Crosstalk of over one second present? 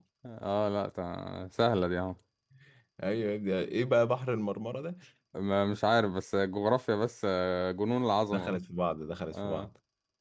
No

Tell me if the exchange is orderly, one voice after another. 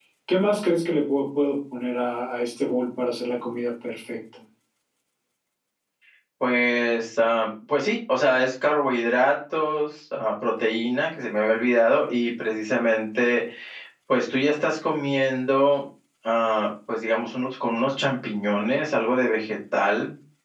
Yes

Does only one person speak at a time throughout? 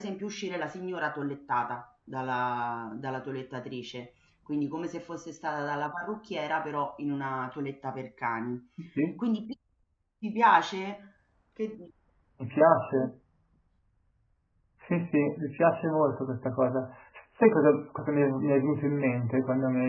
Yes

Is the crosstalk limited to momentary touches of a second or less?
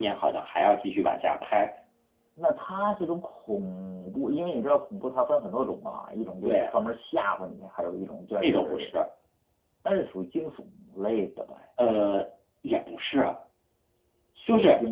Yes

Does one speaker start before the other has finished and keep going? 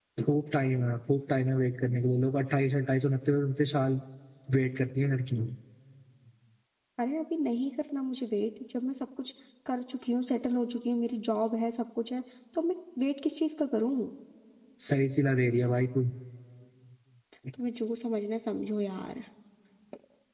No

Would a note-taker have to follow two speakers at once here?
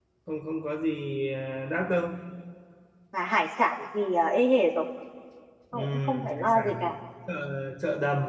Yes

